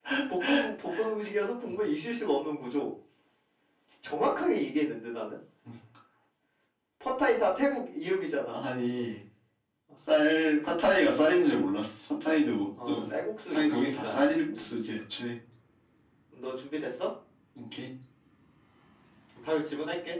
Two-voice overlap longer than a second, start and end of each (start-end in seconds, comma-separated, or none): 13.5-14.8